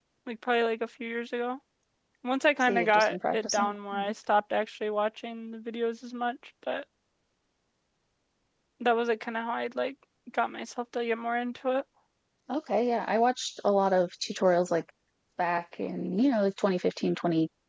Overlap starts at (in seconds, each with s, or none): 2.6 s